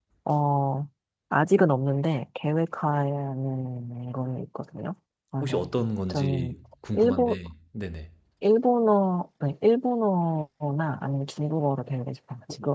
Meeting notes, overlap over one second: none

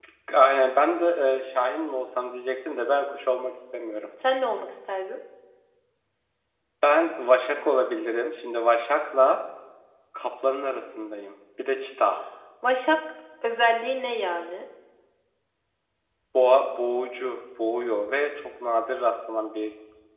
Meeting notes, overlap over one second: none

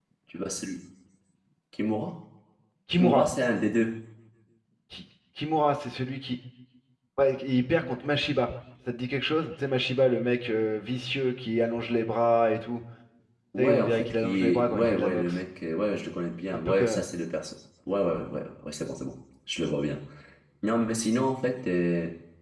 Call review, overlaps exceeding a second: present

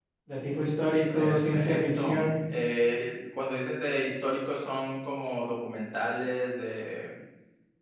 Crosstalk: present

